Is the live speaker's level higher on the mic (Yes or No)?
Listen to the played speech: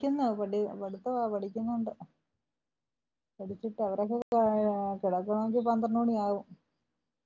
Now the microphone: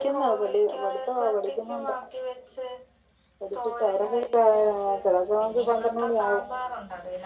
No